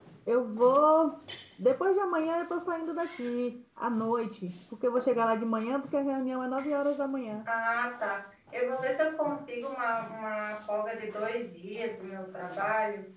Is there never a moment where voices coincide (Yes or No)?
Yes